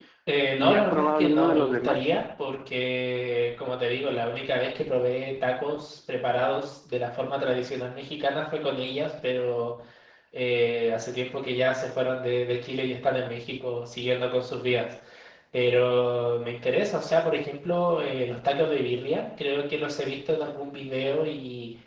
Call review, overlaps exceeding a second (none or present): present